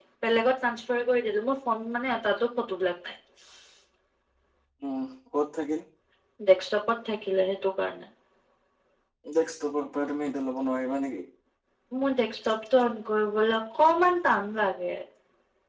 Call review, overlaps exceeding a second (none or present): none